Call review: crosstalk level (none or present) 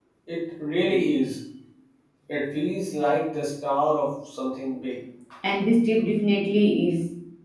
none